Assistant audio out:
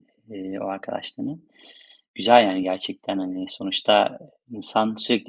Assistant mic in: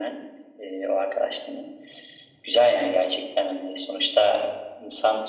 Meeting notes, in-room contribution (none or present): none